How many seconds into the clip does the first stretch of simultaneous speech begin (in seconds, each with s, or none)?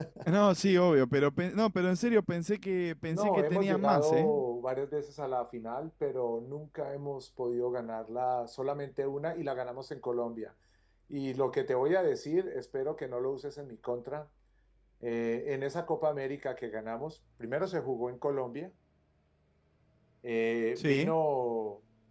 3.0 s